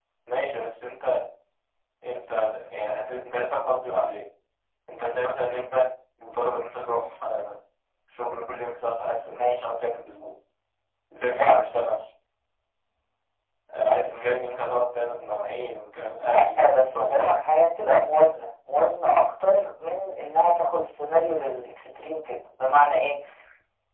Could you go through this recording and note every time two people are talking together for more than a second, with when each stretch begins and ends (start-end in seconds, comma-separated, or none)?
16.2-17.4